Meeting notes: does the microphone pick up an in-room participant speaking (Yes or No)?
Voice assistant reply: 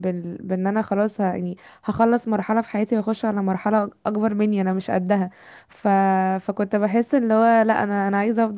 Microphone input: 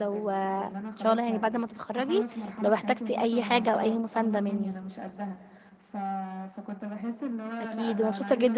Yes